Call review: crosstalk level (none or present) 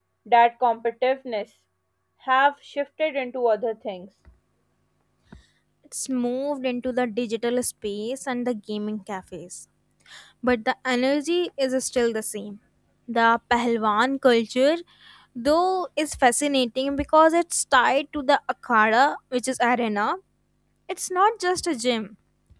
none